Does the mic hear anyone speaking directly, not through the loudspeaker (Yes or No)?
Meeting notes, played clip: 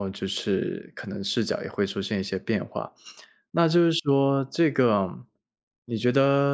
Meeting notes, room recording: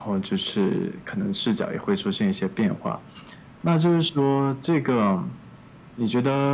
No